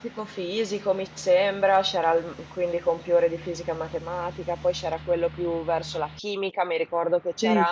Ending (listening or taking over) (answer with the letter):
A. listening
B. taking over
A